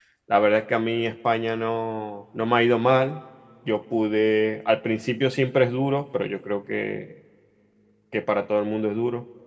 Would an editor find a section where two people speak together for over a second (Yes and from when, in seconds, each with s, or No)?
No